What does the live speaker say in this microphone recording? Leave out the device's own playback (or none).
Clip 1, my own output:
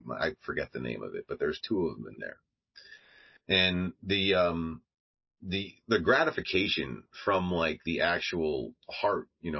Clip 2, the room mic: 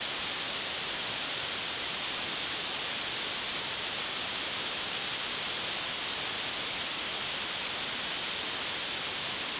none